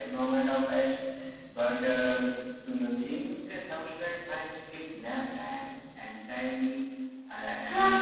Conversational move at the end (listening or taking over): taking over